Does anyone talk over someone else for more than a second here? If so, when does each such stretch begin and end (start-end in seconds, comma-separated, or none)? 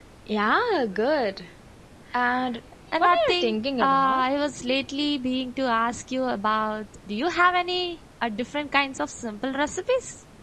3.0-4.2